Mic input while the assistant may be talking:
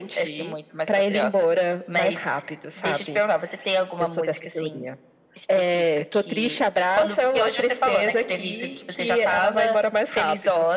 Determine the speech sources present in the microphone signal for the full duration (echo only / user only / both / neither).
echo only